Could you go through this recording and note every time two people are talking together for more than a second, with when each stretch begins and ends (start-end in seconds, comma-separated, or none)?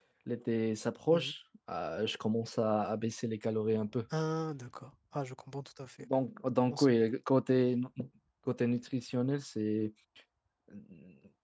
none